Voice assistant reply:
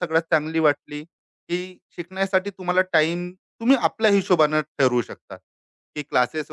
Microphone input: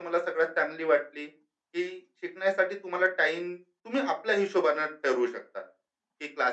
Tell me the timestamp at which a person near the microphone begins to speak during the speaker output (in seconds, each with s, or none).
none